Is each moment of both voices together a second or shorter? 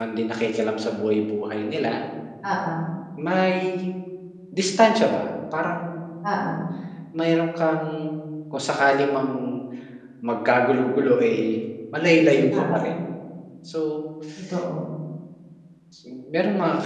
Yes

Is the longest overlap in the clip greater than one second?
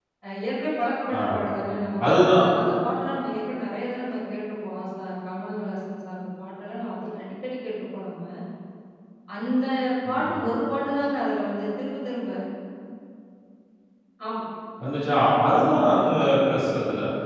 No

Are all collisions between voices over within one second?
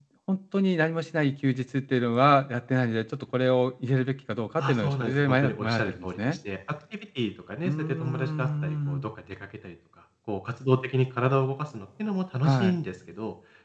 No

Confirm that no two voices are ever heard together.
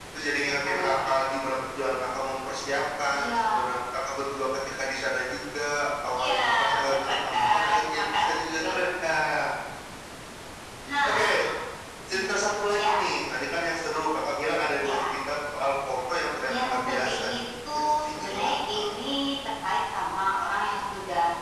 No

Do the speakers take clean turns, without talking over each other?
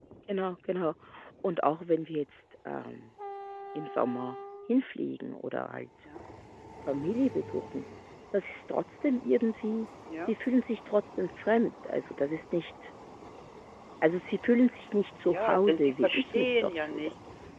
No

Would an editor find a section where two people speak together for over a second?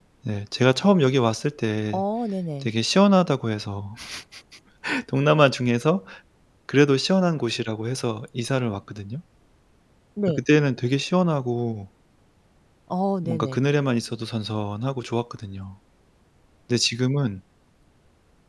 No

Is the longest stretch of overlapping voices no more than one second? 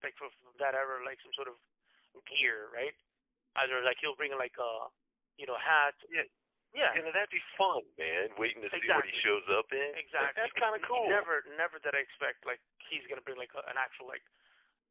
No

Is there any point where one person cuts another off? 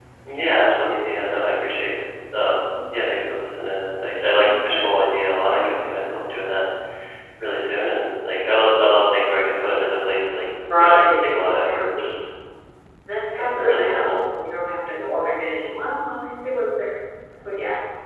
Yes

